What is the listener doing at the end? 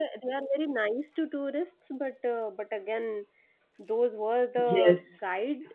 listening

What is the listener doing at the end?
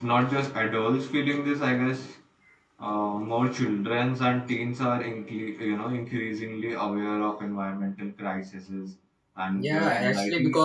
taking over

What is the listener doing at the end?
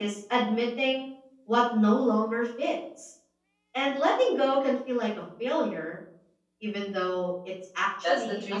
taking over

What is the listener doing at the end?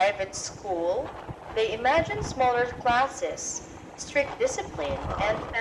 listening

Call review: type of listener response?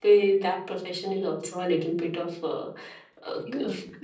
taking over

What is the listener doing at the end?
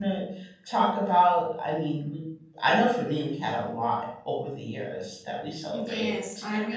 taking over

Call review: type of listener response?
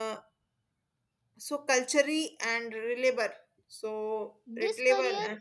taking over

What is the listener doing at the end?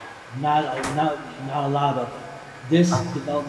listening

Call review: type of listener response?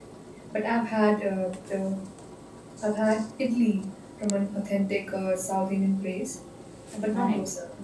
listening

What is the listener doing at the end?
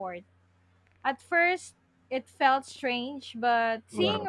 listening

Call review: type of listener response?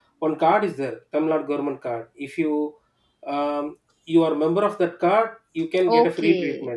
taking over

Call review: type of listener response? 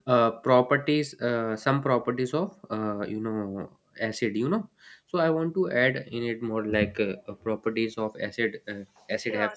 listening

